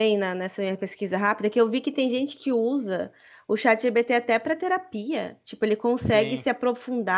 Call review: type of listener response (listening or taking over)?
listening